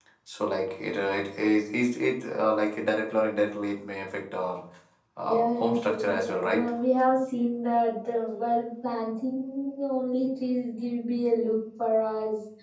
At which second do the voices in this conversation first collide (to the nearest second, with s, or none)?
5 s